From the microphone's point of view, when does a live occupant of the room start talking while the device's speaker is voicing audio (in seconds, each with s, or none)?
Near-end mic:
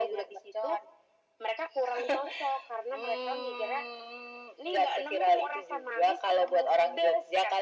none